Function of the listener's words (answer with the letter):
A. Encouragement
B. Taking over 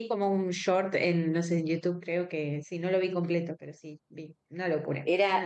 B